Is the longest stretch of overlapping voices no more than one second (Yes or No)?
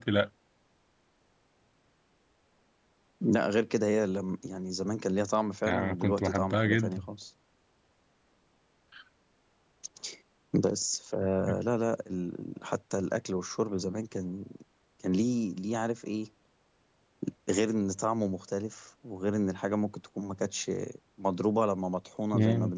No